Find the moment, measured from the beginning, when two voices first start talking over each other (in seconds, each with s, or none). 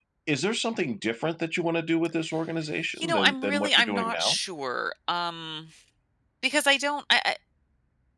3.0 s